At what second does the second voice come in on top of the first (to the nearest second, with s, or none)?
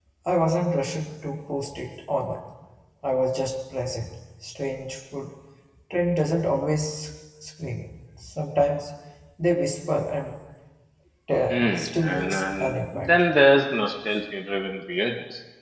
11 s